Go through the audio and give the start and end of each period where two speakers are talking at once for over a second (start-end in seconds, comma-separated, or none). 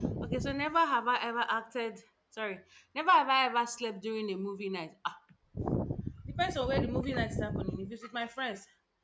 none